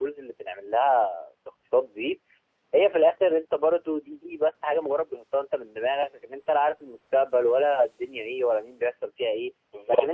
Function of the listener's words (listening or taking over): listening